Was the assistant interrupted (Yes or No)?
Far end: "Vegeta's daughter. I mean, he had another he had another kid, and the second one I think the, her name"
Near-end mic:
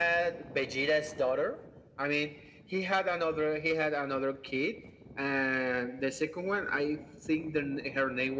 No